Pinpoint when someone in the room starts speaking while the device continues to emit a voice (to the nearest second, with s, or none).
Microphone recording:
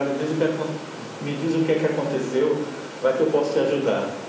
none